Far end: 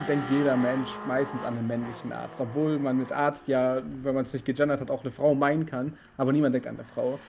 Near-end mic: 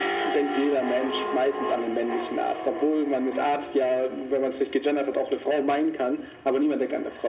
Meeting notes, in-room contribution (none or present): none